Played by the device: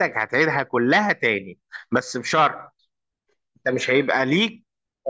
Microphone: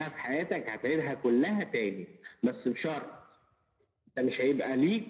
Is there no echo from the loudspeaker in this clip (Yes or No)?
No